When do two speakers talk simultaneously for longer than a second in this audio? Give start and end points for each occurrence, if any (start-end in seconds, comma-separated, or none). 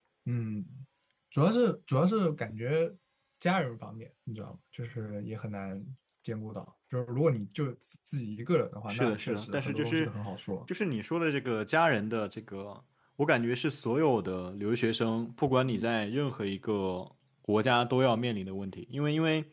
8.9-10.1